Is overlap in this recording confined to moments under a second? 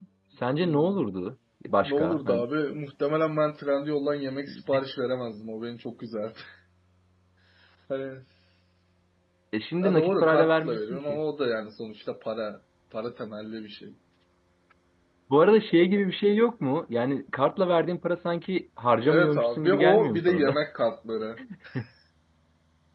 No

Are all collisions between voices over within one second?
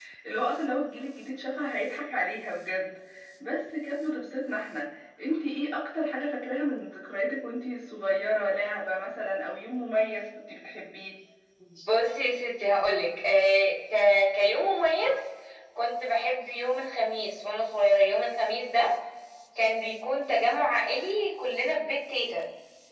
Yes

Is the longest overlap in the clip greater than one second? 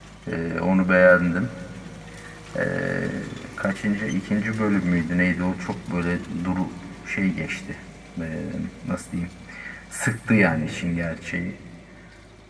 No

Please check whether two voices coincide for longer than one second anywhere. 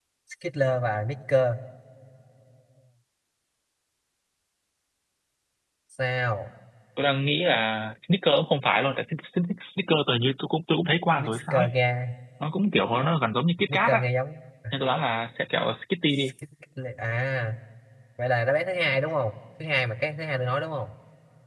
No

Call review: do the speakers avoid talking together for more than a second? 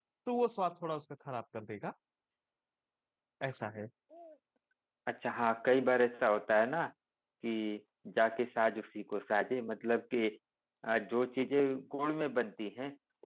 Yes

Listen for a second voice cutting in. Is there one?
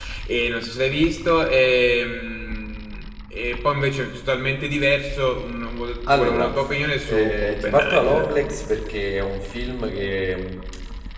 Yes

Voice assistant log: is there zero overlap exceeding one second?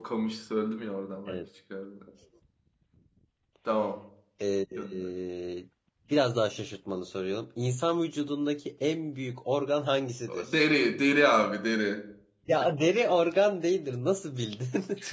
Yes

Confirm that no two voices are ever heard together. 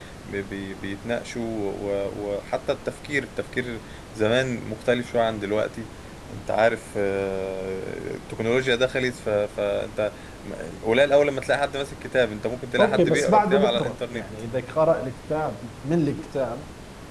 No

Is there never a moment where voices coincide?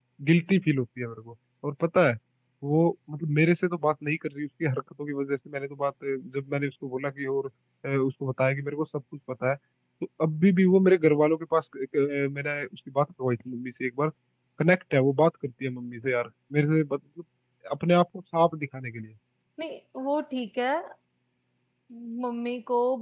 Yes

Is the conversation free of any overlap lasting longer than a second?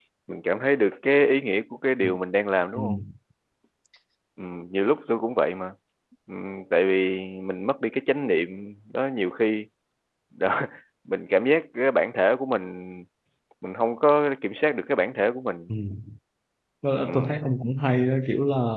Yes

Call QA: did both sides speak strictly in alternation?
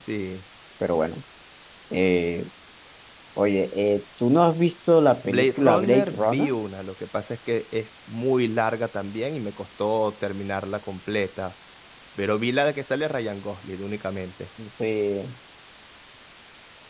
No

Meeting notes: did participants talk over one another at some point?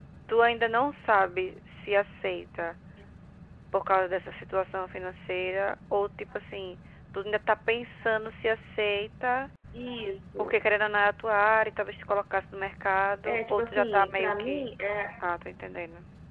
Yes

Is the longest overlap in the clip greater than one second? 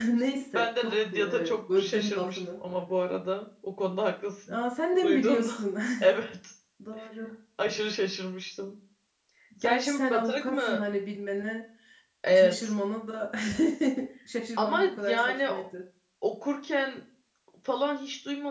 Yes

